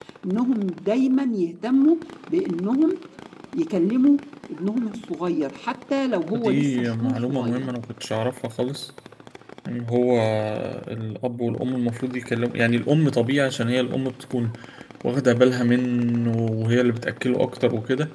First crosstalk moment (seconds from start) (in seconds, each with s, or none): 6.3 s